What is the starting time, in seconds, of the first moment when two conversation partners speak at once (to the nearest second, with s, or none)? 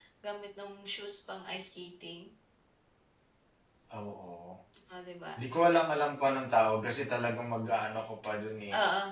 none